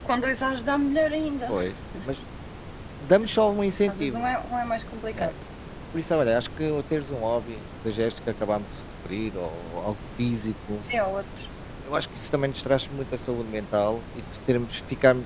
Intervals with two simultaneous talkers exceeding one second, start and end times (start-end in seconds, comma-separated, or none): none